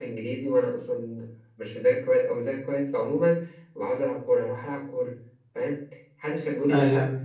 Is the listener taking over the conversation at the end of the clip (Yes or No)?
No